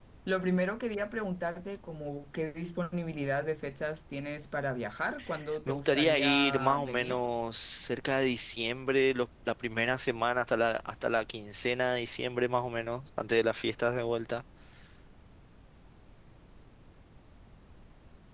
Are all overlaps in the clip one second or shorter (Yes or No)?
No